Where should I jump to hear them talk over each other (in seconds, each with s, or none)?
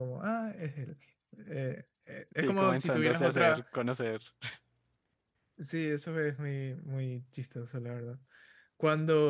2.4 s